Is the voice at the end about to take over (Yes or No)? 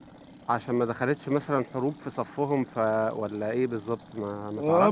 Yes